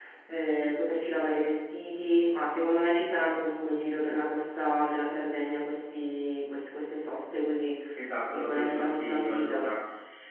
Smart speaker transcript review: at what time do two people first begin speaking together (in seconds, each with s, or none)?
8.3 s